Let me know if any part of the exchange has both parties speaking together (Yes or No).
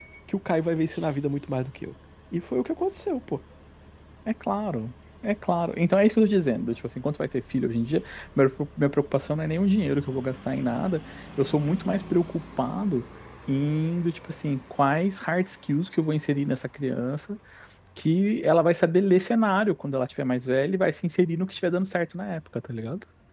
No